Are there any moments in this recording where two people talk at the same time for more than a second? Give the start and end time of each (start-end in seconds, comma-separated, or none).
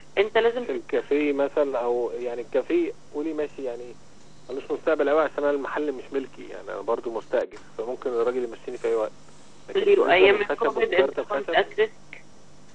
9.8-11.6